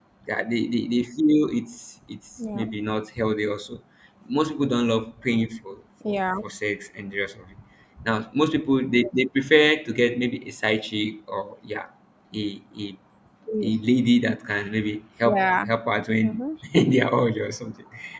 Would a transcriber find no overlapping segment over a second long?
Yes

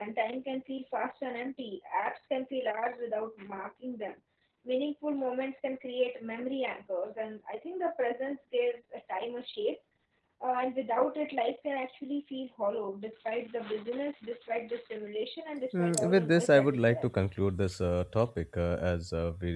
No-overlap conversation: No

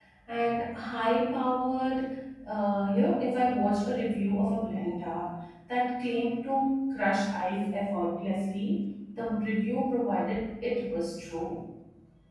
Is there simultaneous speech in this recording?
No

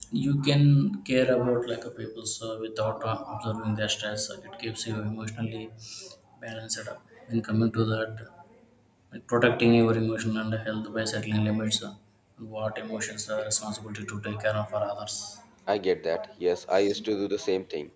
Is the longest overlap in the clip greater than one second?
No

